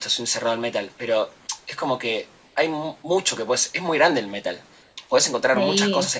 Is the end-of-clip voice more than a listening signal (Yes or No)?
No